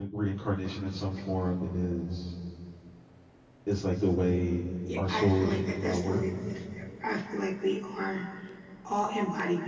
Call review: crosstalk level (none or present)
present